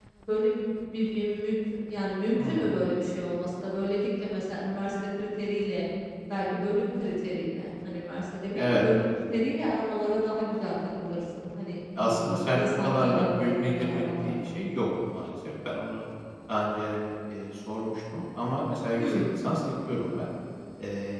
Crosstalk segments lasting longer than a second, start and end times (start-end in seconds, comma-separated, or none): 12.0-14.5